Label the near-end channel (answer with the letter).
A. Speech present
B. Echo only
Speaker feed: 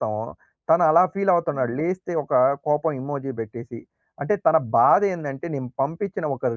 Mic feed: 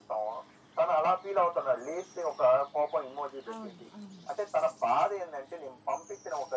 A